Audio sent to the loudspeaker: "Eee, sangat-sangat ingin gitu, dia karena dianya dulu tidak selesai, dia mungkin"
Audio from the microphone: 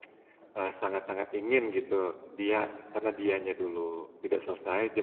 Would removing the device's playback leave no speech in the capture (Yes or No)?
Yes